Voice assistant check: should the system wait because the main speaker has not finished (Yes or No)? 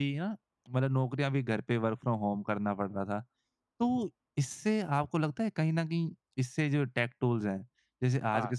Yes